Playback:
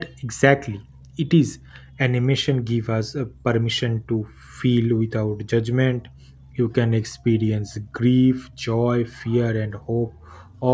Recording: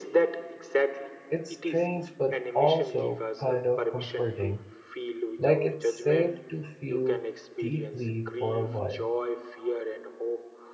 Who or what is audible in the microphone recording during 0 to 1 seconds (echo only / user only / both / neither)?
echo only